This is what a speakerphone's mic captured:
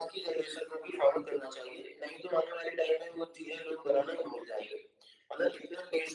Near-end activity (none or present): none